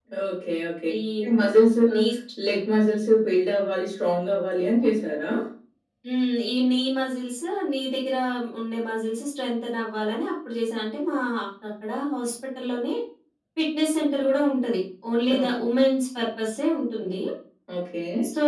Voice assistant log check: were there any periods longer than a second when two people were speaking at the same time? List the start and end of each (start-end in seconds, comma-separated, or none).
none